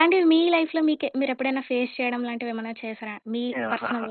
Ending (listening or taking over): taking over